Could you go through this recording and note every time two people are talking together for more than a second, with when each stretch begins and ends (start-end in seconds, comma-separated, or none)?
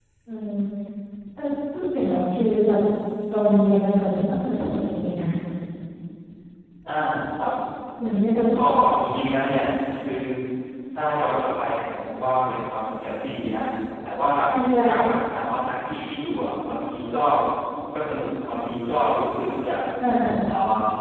none